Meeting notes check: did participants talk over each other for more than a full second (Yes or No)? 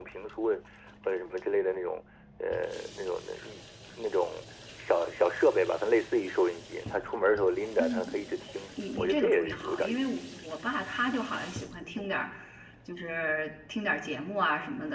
Yes